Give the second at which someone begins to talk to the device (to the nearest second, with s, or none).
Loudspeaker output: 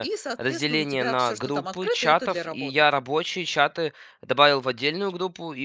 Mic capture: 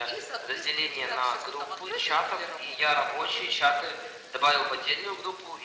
none